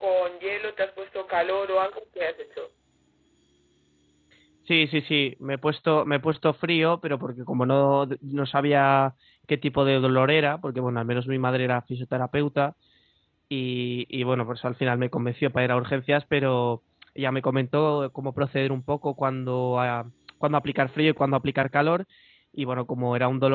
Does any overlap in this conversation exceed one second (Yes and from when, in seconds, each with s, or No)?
No